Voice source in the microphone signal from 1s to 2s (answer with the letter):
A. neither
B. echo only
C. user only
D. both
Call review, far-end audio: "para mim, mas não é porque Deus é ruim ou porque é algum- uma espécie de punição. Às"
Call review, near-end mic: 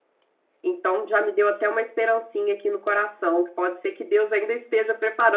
C